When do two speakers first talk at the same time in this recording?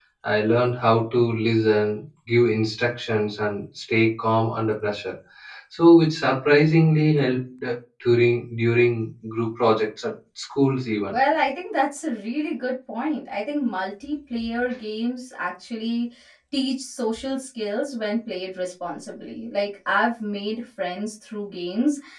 none

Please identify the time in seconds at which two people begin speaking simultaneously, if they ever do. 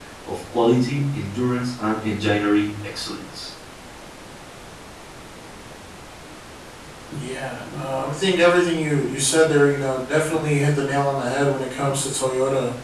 none

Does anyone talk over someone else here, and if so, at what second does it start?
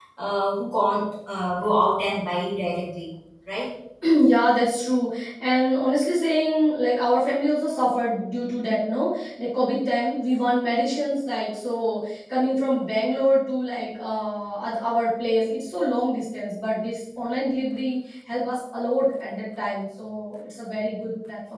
none

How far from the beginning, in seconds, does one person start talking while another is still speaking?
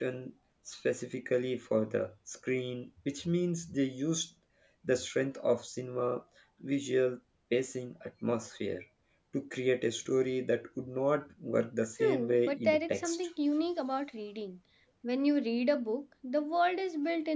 12.0 s

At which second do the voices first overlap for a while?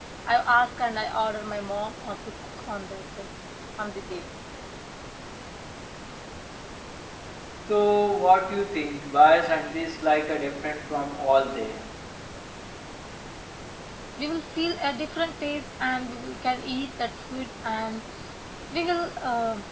none

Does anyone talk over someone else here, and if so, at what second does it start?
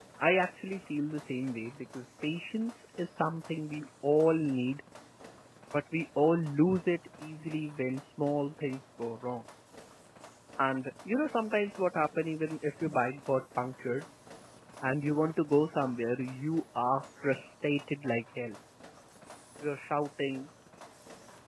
none

